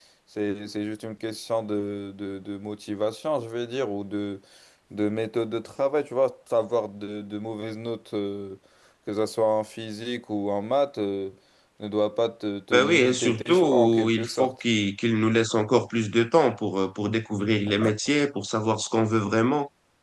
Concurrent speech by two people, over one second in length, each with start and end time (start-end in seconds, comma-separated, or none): 12.7-14.5